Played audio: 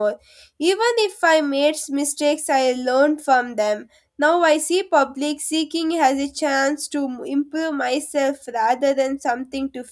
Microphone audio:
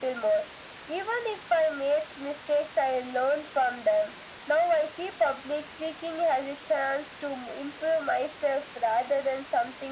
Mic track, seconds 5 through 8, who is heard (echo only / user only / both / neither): echo only